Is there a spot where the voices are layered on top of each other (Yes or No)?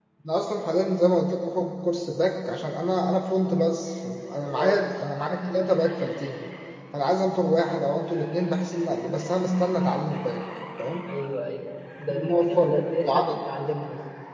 Yes